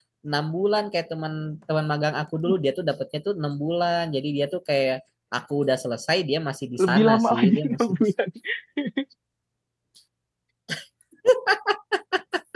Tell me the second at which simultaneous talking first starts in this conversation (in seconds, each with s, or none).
6.8 s